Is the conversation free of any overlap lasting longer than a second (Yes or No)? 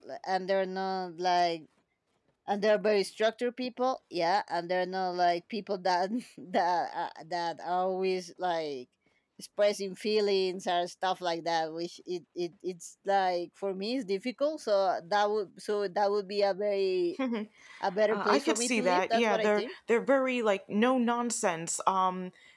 No